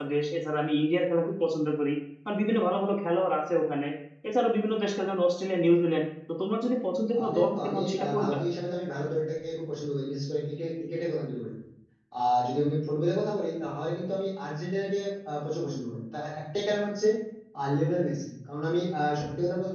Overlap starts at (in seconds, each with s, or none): 7.1 s